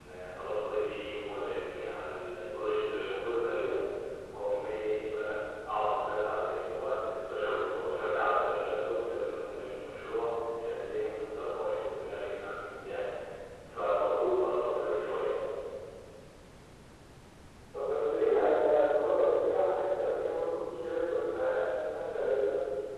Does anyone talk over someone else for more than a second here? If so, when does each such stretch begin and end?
none

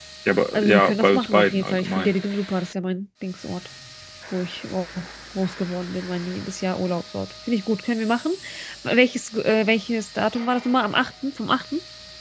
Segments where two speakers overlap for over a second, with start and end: 0.5-2.1

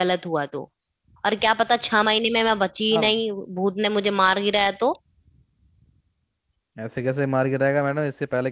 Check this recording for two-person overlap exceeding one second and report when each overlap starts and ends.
none

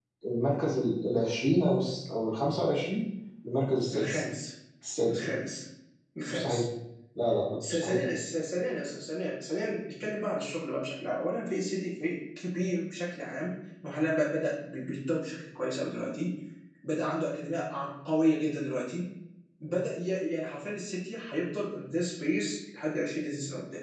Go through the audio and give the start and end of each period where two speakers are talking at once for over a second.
none

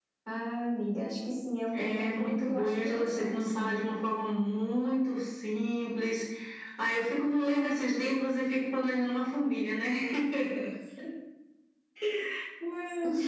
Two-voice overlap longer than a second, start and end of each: 1.7-3.8

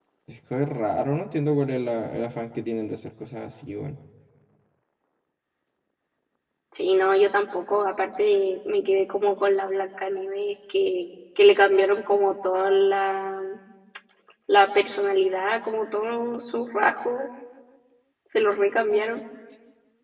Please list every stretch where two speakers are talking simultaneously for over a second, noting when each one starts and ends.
none

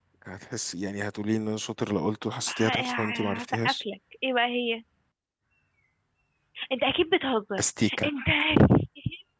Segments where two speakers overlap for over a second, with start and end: 2.5-3.8

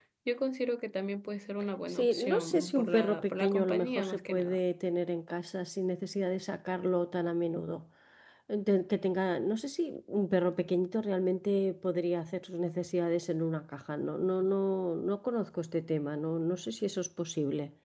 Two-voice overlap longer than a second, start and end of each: 1.9-4.6

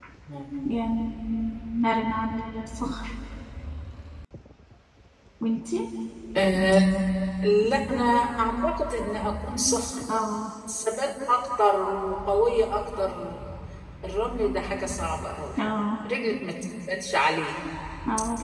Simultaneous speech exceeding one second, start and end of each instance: none

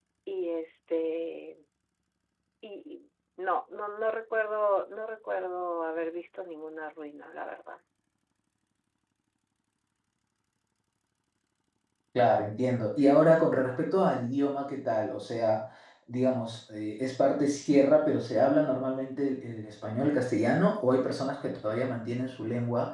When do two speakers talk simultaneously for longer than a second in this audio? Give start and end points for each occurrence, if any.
none

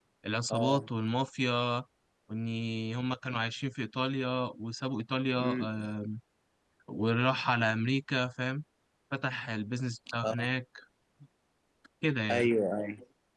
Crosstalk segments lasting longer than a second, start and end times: none

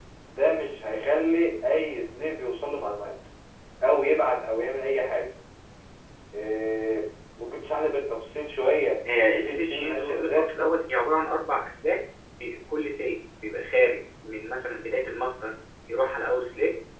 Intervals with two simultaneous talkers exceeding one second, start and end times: 9.2-10.5

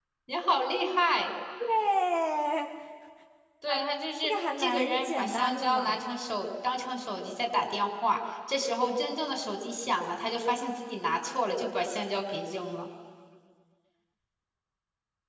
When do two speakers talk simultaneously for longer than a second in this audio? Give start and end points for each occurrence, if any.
4.2-6.0

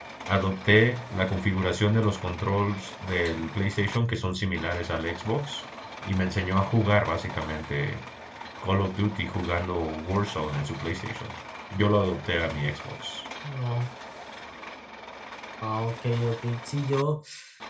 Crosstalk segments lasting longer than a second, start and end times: none

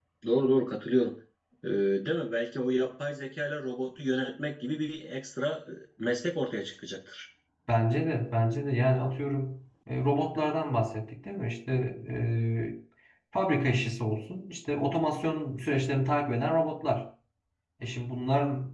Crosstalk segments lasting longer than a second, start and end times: none

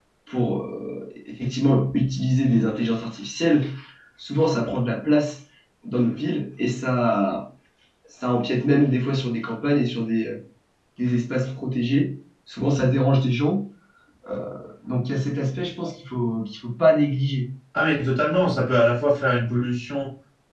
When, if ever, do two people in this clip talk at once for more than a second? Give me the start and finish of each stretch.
none

